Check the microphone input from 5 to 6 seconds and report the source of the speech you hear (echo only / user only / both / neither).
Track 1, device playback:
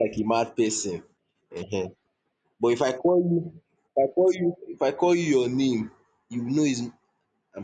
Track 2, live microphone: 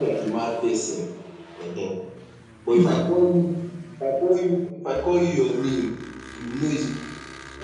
echo only